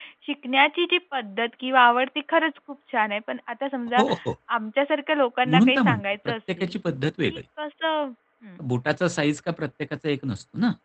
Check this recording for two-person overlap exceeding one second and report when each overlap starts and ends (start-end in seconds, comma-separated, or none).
5.5-6.8